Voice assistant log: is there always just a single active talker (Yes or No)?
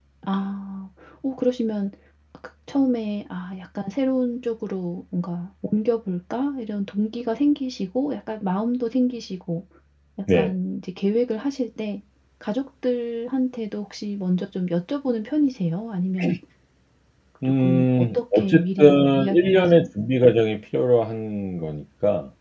No